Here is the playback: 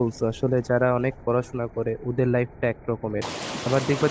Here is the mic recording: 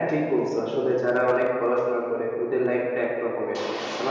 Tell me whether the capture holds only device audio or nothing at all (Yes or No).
Yes